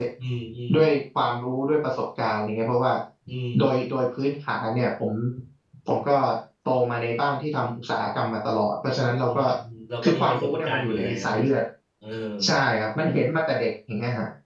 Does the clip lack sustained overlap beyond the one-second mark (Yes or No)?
No